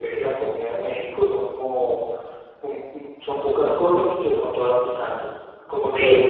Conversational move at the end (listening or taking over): listening